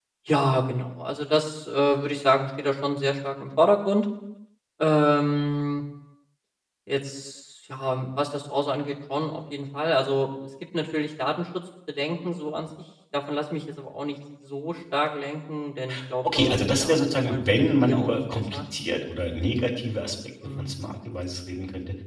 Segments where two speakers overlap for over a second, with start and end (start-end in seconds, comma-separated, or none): 16.3-18.6